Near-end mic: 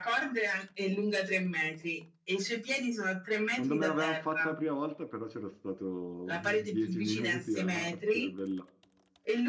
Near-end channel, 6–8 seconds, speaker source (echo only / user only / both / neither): both